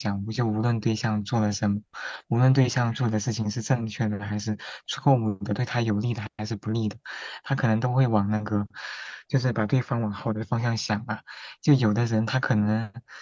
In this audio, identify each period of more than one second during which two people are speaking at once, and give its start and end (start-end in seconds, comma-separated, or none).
none